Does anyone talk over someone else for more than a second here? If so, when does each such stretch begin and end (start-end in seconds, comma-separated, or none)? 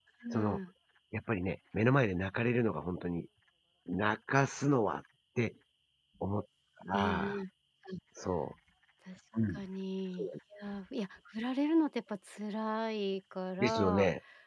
none